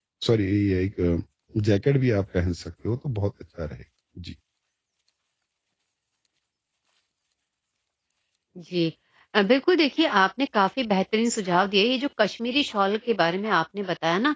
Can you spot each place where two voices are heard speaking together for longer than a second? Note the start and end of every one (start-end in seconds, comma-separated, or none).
none